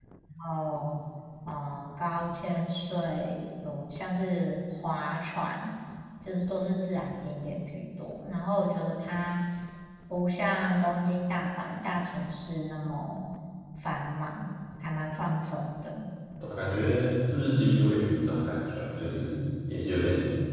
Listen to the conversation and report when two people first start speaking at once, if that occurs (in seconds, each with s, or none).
none